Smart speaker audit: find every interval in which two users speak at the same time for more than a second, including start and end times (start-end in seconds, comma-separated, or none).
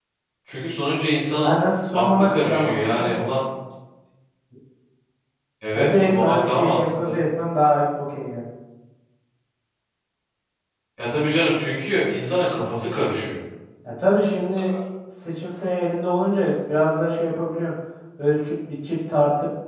1.9-3.1, 5.7-7.2